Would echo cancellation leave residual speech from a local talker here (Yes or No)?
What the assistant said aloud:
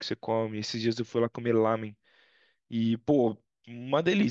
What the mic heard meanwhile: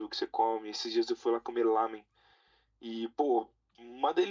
No